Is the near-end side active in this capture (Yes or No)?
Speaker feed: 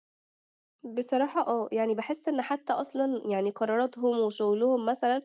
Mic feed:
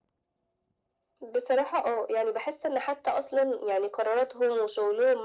No